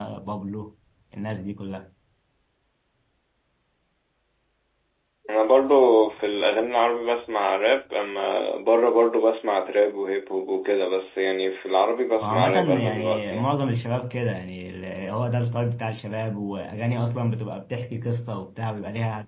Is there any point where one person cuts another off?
Yes, from 12.2 s

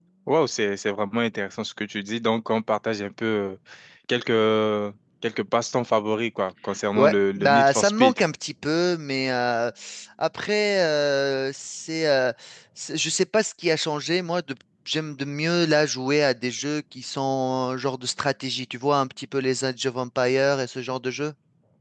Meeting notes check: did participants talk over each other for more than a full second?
Yes, from 7.0 s

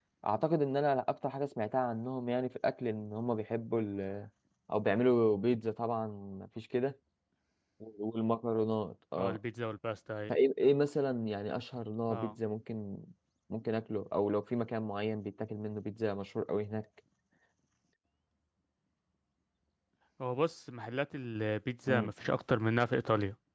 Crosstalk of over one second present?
No

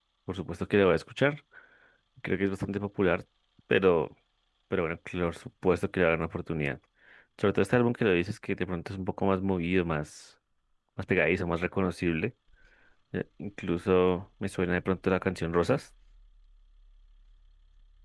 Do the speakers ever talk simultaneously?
No

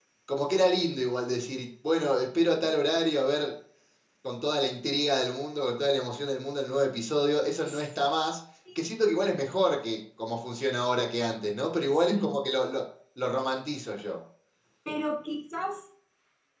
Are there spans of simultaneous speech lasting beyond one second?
No

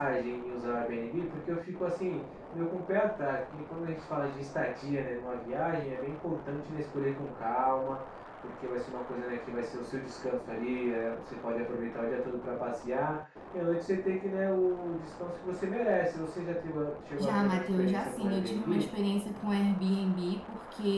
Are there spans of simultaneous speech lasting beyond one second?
Yes, from 17.2 s

